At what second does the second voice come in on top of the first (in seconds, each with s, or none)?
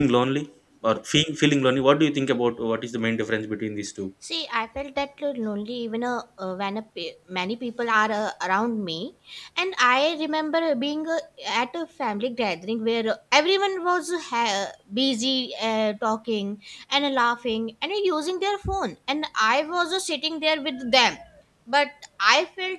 none